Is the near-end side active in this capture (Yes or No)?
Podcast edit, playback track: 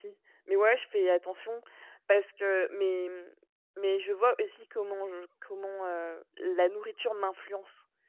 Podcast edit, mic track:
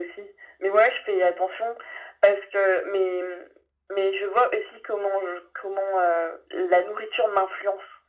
No